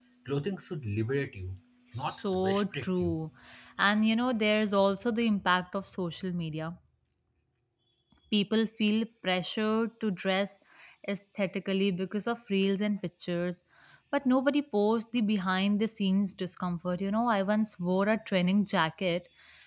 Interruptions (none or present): present